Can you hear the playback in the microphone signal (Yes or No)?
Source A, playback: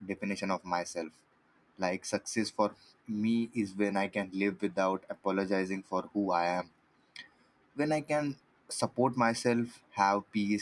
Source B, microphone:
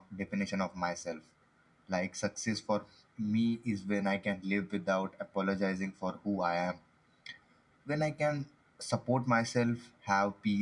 Yes